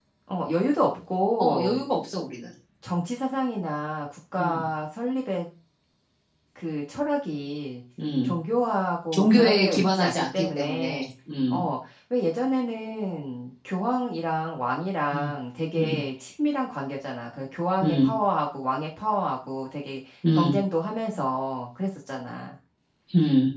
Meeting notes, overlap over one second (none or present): present